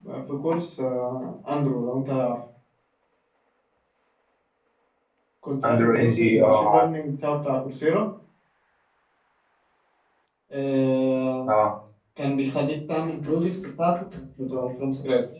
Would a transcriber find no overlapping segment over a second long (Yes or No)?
No